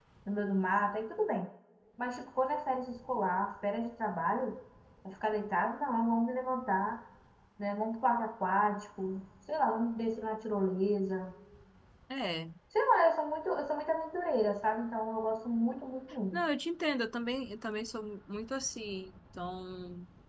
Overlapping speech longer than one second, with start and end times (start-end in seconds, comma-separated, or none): none